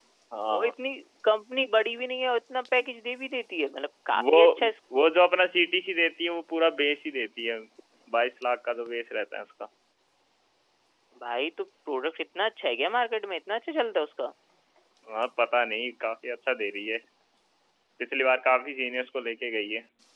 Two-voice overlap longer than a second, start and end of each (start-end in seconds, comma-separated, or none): none